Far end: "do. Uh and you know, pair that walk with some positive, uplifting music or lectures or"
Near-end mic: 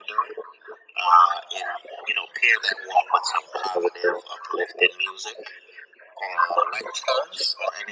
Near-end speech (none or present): none